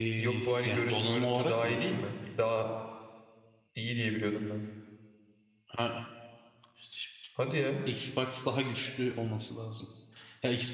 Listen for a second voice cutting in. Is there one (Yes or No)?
Yes